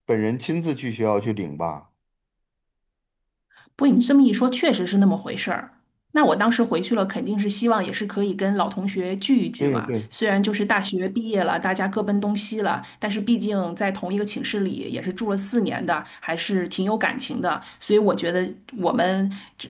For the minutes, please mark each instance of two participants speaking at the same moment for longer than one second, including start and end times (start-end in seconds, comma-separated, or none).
none